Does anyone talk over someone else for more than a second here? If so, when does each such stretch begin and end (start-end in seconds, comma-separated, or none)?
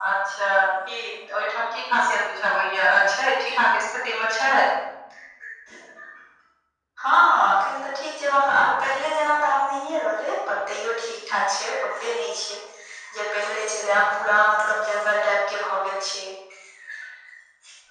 none